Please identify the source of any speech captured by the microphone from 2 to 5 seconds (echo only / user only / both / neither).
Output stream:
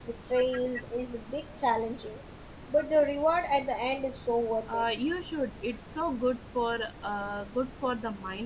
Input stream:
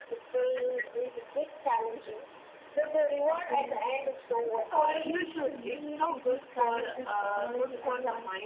both